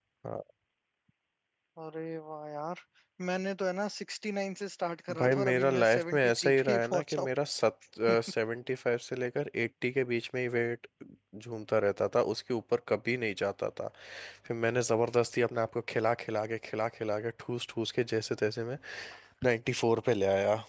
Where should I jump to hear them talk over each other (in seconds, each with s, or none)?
5.1 s